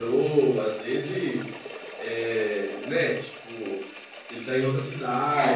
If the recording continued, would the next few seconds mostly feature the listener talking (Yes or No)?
Yes